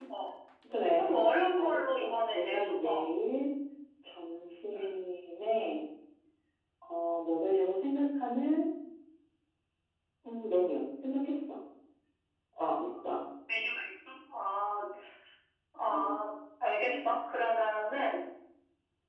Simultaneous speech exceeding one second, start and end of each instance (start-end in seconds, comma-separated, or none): 1.6-3.0